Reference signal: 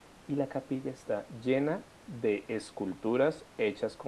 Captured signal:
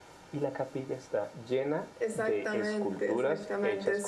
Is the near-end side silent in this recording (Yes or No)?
No